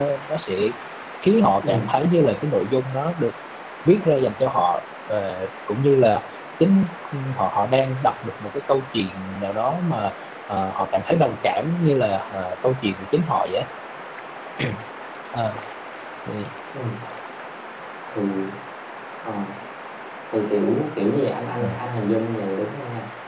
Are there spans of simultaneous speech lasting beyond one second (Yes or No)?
No